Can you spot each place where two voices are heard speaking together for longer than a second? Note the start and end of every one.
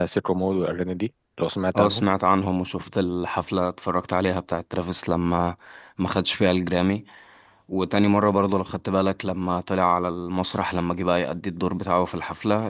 none

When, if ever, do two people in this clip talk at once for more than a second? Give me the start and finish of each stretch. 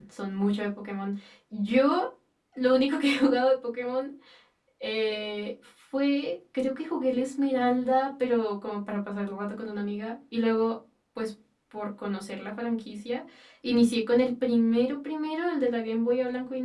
none

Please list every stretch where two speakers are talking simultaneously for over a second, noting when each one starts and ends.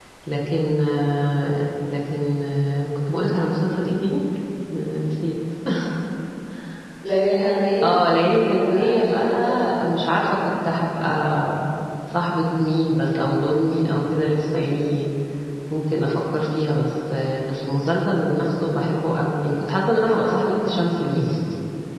8.6-9.9

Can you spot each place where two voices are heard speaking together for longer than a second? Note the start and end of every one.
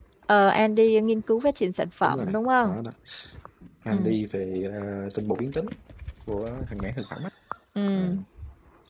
none

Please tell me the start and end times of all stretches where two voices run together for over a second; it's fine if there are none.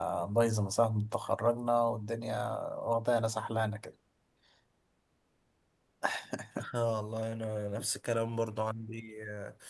none

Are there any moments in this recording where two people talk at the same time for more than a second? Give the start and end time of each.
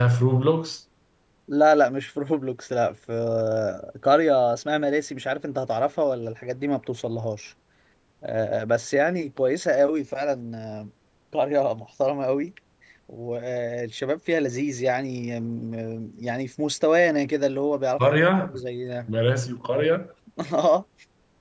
none

